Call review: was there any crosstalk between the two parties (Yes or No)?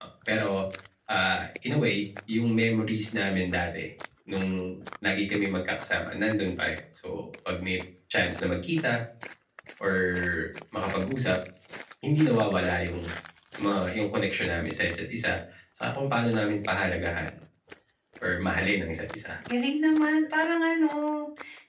No